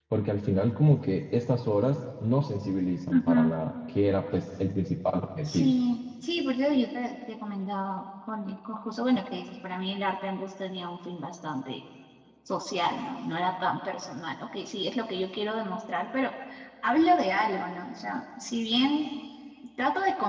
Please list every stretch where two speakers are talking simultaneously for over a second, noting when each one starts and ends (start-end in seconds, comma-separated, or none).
none